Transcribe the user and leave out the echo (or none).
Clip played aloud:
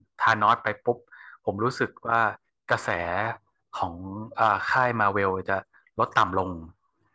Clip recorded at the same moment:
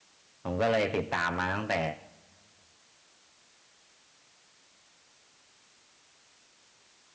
ผมก็เลยติดตามมาตั้งแต่